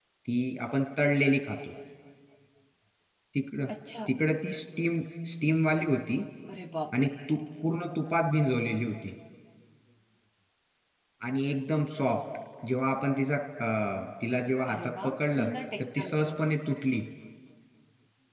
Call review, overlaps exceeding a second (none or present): present